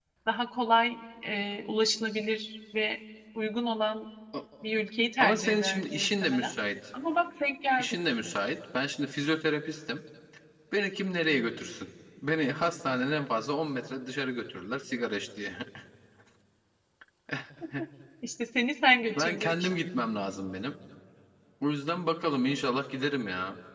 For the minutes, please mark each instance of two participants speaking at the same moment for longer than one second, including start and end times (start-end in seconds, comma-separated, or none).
5.2-6.5